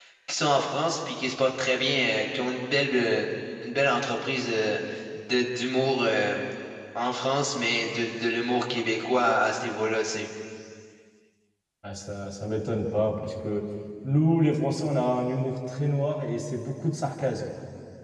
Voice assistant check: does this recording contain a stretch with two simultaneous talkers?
No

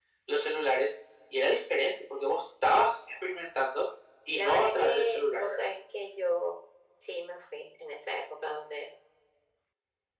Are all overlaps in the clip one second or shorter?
No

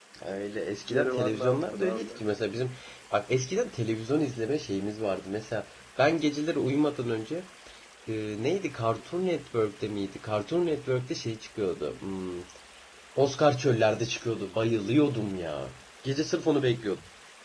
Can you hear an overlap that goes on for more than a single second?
Yes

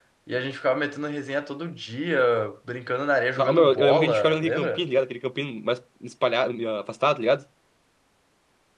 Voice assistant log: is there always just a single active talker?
No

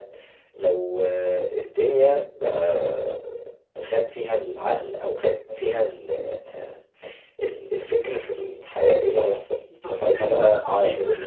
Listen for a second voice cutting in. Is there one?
Yes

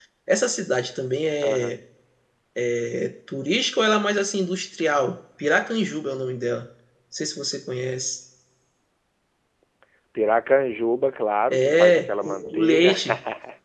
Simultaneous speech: Yes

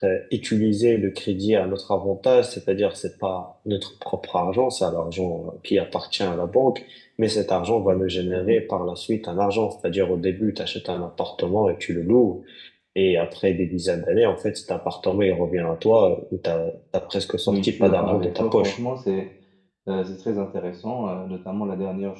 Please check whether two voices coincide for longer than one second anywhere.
Yes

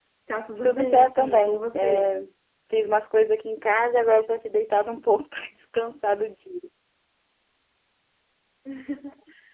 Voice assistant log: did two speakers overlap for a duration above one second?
Yes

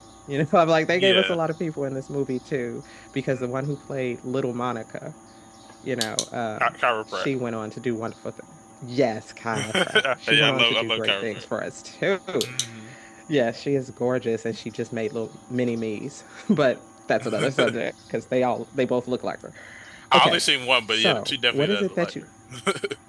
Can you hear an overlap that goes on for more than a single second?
Yes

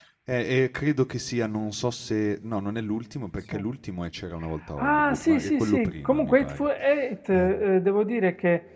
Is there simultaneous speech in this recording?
Yes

